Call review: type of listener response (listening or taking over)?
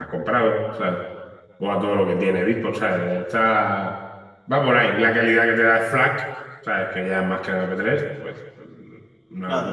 taking over